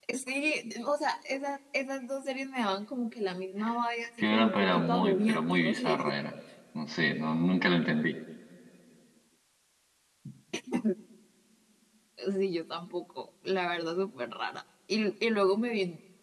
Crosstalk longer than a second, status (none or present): present